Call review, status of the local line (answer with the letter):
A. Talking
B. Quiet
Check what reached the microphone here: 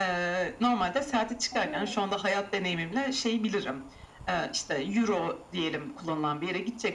A